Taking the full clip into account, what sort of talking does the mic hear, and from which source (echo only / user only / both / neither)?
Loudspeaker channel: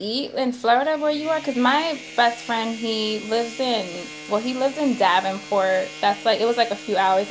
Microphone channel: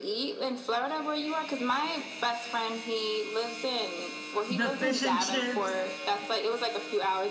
both